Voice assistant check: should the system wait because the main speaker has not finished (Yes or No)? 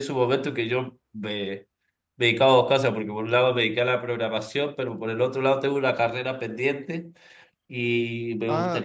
No